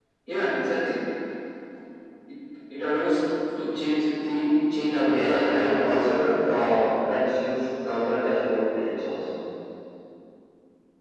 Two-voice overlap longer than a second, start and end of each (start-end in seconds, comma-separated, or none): 5.0-6.2